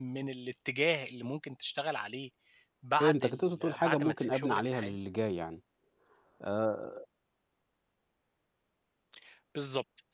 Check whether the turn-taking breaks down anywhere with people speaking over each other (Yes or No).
Yes